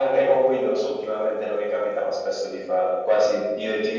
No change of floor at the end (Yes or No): Yes